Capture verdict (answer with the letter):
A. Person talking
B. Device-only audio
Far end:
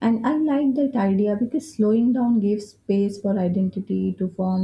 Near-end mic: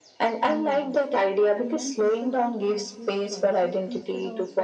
A